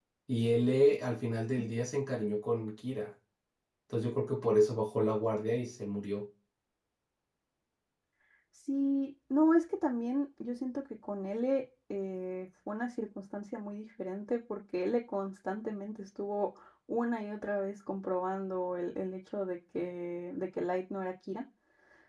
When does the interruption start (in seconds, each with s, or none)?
none